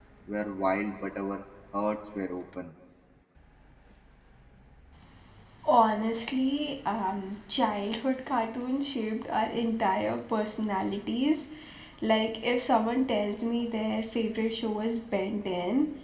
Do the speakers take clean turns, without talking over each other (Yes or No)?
Yes